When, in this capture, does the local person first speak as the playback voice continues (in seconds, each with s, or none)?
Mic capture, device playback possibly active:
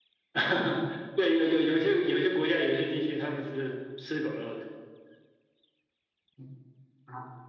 none